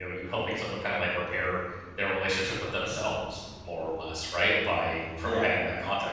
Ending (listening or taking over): listening